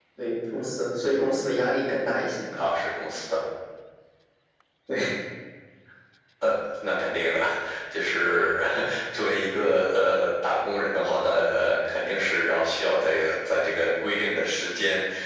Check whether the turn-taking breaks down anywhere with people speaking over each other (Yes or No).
No